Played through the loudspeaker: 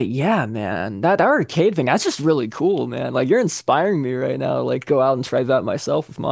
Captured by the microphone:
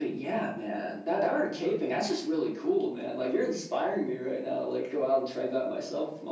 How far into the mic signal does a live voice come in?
none

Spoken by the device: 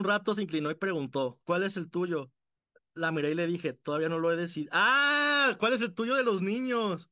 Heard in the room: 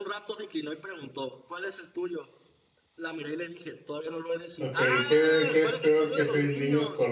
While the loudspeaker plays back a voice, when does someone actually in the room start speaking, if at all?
4.6 s

